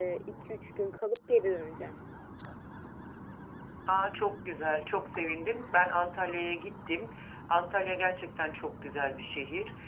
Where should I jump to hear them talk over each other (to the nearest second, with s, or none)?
none